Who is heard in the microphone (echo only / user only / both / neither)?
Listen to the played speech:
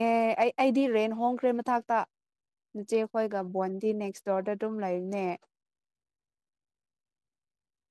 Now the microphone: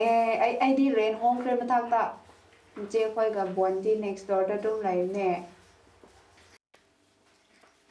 echo only